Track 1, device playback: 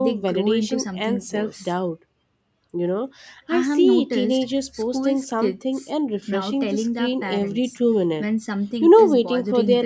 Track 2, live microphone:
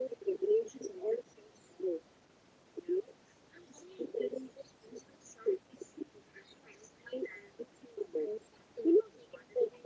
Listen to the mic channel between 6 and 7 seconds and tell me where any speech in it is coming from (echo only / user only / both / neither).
echo only